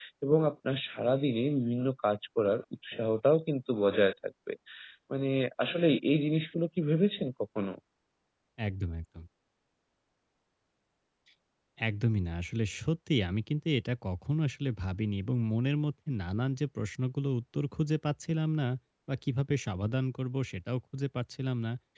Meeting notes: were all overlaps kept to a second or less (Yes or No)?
Yes